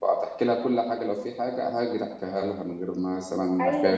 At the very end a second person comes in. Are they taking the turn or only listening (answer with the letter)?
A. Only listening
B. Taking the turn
B